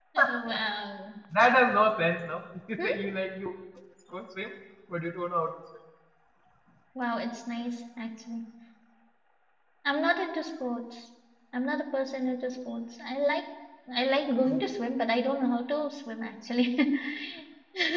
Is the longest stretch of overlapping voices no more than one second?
Yes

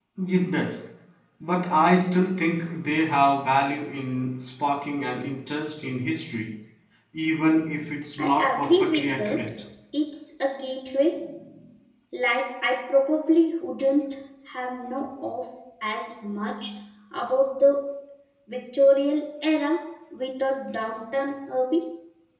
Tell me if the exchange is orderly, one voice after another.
No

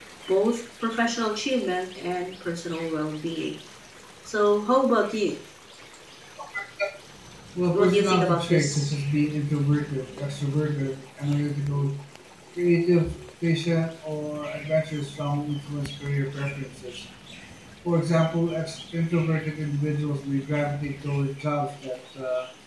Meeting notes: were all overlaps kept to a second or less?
No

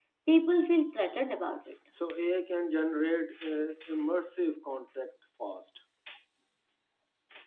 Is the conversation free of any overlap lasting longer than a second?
Yes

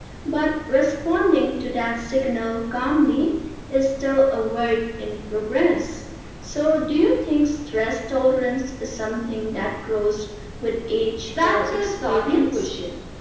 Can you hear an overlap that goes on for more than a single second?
Yes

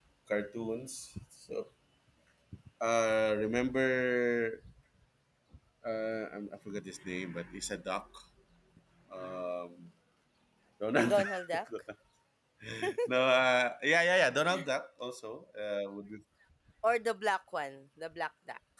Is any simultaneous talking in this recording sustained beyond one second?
No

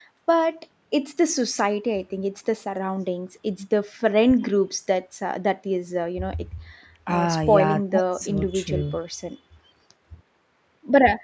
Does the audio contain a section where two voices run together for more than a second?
Yes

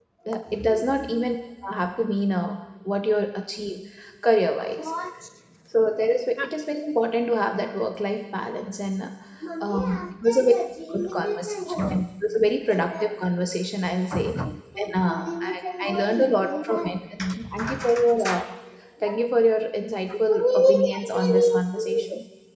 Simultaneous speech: Yes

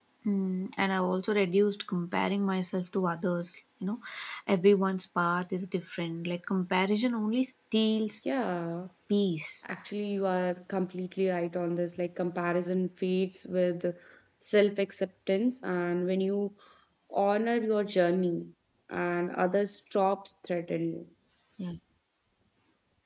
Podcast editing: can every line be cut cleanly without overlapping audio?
Yes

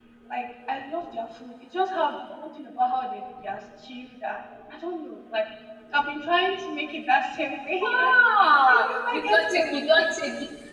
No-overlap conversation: No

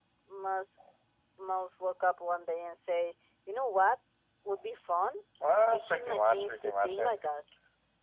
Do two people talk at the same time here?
Yes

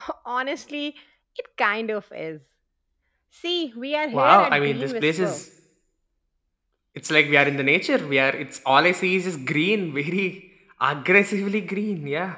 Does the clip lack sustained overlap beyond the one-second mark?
No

